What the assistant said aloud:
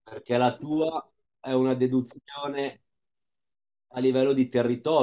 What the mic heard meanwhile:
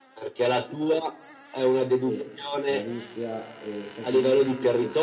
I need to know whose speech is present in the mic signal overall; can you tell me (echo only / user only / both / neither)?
both